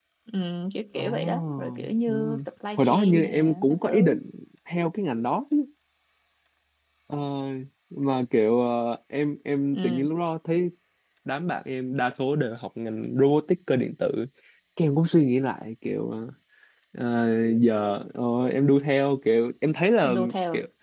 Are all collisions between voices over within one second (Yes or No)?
No